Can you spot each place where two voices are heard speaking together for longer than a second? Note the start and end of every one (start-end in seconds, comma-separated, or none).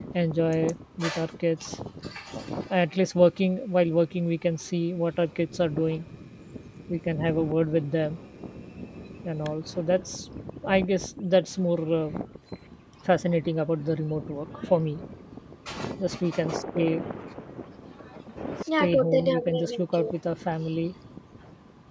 18.8-20.1